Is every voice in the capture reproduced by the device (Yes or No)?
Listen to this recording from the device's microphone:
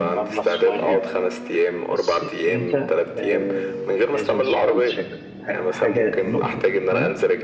No